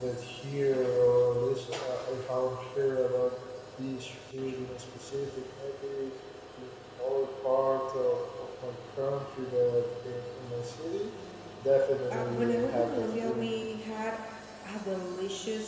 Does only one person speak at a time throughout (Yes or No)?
No